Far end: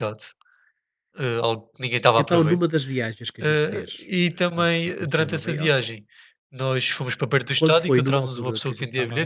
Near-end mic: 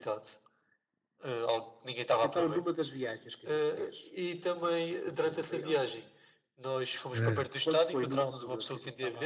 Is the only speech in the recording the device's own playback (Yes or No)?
No